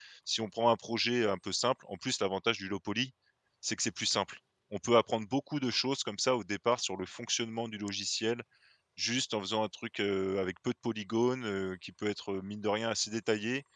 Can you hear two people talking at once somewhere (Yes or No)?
No